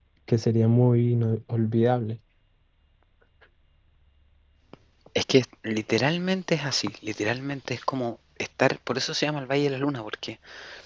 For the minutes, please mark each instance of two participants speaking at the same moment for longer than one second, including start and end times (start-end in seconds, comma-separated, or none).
none